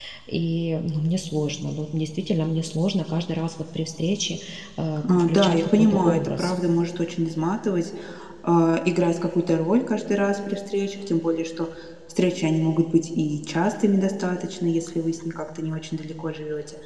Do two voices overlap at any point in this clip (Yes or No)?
Yes